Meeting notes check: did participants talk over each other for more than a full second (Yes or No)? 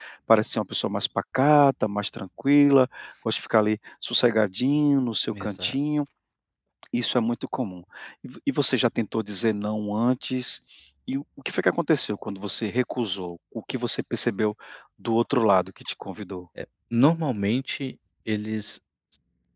No